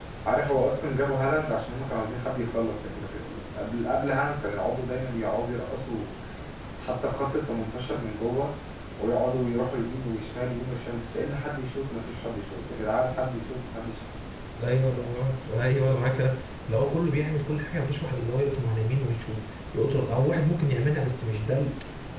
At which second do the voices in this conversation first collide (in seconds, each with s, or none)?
none